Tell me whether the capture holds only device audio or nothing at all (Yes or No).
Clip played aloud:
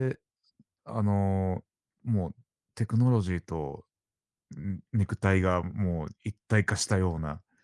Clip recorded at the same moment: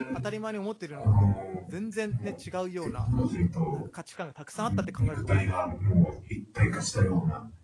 No